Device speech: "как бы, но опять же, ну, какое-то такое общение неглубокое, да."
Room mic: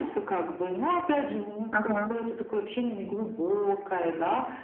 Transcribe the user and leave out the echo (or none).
Ага.